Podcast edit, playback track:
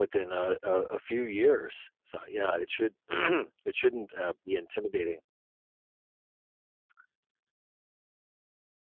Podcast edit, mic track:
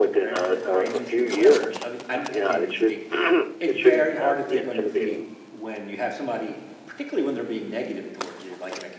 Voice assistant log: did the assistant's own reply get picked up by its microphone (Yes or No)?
Yes